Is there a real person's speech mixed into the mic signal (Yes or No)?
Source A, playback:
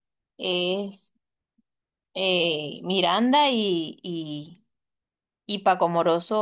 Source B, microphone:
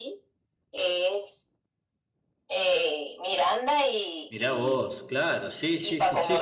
Yes